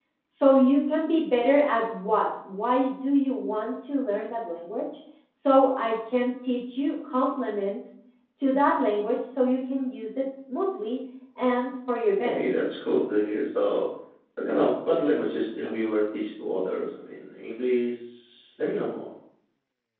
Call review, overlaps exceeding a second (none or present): none